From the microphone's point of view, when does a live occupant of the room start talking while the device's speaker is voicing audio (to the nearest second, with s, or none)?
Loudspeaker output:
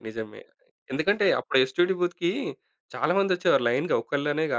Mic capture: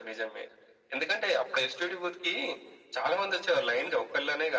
none